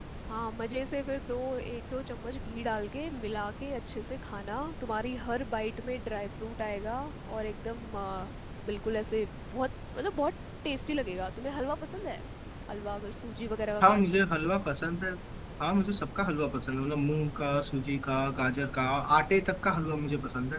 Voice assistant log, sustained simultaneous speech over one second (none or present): none